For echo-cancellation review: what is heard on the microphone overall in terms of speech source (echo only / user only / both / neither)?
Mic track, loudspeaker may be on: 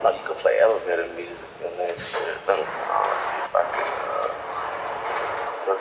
echo only